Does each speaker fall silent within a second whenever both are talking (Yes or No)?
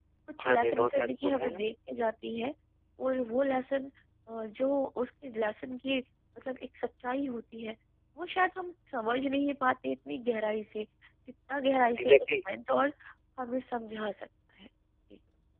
No